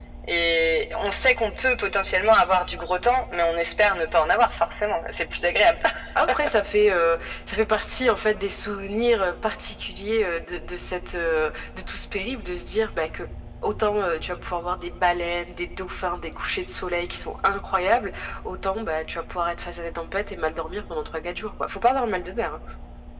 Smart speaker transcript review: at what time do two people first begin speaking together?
none

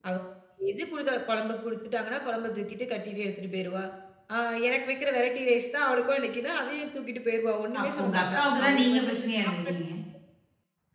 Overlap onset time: 8 s

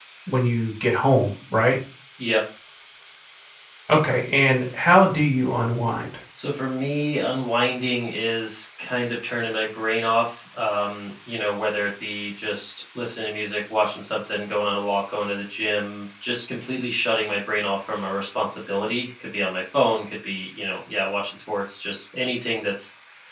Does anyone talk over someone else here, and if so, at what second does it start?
none

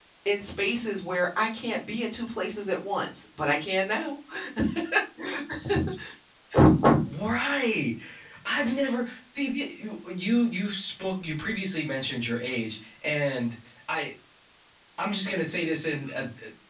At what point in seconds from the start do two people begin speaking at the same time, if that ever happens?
none

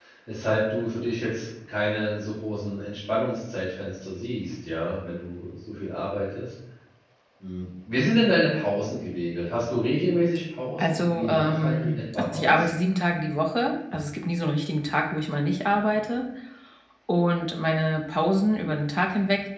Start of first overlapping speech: 11 s

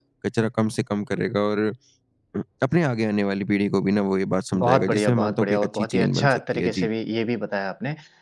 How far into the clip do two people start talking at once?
5 s

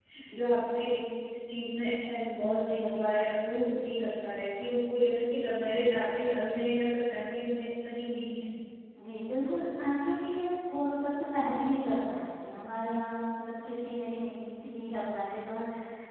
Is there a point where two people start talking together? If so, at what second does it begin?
none

